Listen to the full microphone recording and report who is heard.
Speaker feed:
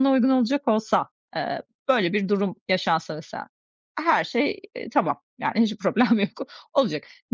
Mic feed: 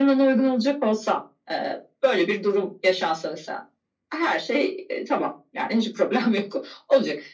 echo only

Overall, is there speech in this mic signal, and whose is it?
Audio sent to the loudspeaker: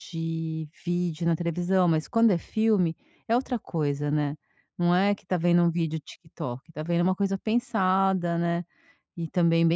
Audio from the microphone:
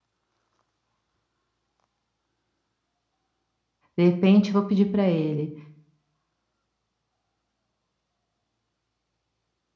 user only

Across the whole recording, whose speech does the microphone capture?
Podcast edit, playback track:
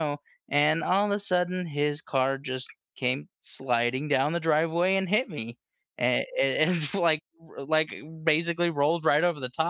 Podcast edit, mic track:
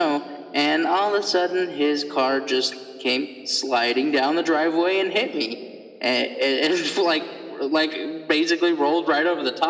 echo only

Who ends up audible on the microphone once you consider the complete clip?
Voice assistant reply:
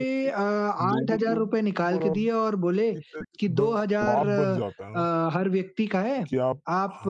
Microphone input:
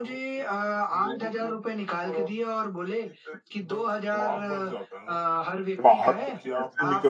both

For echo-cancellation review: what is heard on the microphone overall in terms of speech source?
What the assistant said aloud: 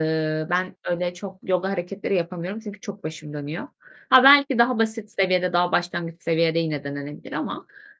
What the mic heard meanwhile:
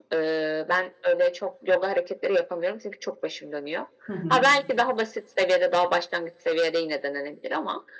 both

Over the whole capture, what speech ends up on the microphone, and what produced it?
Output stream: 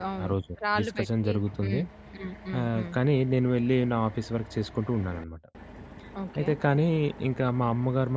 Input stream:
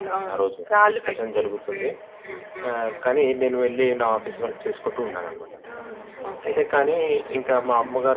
both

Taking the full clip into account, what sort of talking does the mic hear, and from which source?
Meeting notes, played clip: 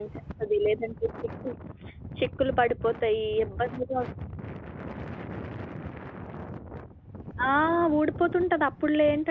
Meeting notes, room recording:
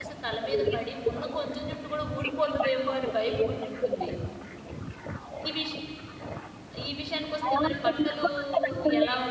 both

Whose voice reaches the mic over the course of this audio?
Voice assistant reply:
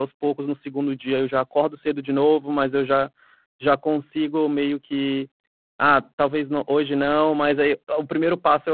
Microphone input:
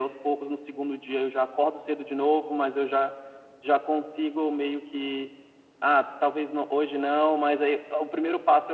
echo only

